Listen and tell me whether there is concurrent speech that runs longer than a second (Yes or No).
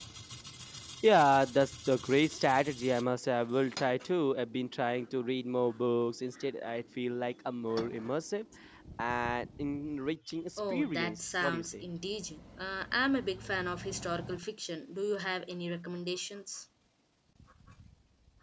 Yes